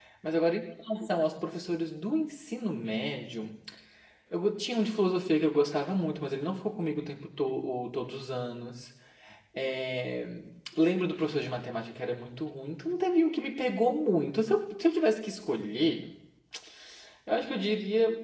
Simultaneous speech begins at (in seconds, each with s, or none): none